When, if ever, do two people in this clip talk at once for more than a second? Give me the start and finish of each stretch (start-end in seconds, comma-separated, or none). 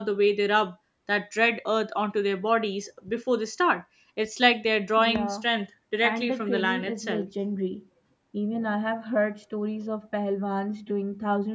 6.0-7.3